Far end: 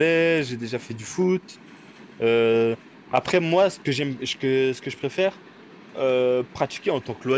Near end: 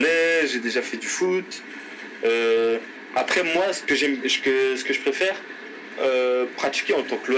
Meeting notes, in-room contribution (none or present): none